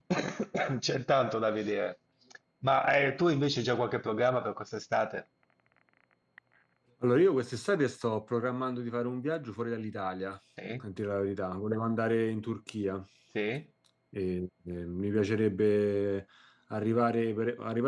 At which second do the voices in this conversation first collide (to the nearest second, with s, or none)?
none